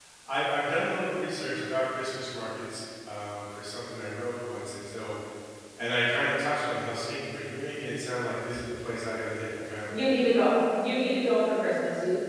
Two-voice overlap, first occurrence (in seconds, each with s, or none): none